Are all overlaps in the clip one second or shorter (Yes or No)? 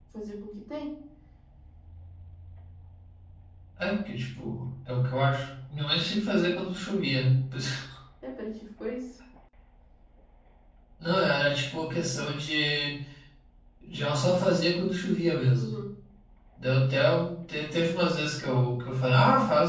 Yes